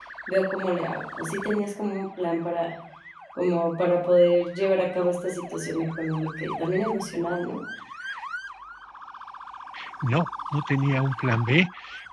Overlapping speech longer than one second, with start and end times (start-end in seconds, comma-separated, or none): none